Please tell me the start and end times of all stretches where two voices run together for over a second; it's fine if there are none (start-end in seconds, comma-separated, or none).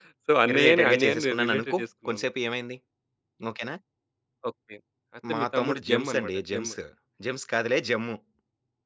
0.6-2.2, 5.3-6.7